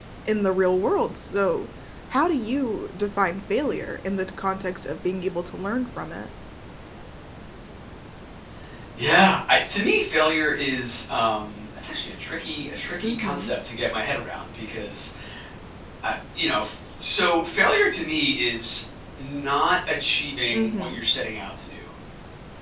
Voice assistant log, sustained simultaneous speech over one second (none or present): none